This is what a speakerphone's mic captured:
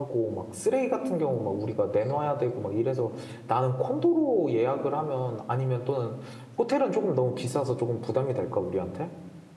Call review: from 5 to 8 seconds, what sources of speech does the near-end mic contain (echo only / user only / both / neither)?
user only